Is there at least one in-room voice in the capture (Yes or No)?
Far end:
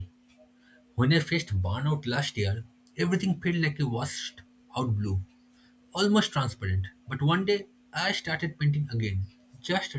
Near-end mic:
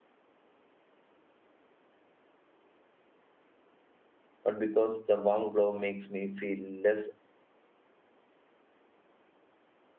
Yes